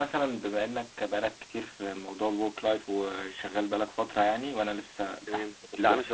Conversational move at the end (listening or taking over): taking over